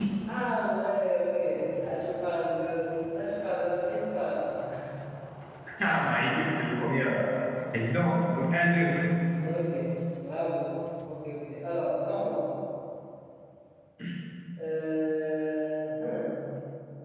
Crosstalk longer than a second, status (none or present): none